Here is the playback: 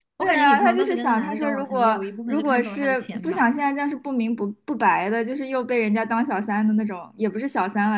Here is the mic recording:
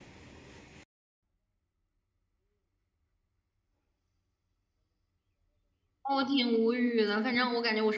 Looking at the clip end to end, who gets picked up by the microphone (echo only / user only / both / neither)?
user only